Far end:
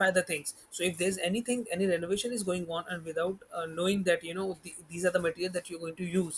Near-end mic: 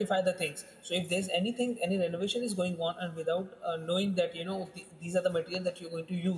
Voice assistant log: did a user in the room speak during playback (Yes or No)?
No